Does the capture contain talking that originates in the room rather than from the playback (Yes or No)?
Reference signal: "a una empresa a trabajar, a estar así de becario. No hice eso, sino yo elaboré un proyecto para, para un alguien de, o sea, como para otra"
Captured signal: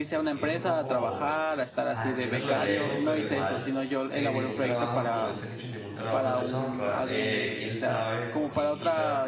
Yes